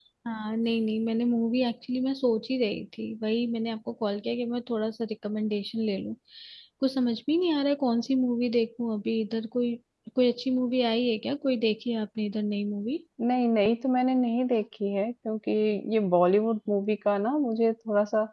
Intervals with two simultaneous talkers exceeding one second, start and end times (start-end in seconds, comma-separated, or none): none